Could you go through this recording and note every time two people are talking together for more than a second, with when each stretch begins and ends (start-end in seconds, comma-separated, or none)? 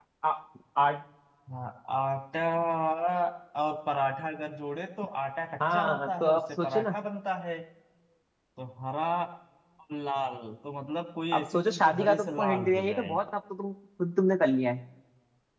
5.7-7.0, 11.3-13.2